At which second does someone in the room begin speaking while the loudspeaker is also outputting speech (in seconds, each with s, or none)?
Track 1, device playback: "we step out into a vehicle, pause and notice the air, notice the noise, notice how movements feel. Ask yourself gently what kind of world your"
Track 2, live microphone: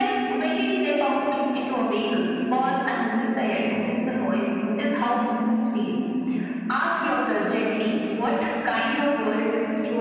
none